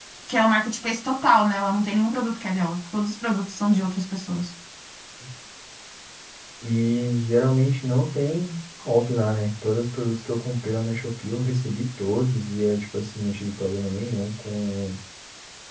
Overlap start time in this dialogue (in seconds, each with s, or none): none